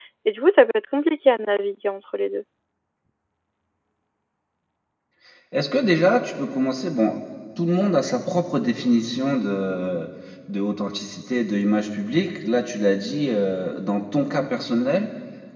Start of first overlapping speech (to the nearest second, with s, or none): none